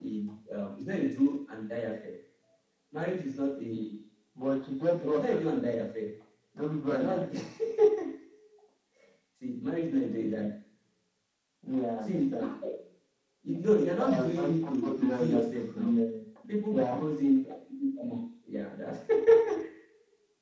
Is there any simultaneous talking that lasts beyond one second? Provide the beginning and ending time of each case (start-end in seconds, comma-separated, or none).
14.0-16.0